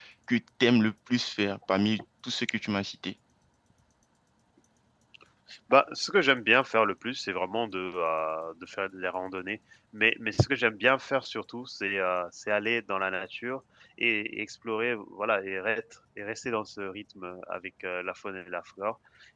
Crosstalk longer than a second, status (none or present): none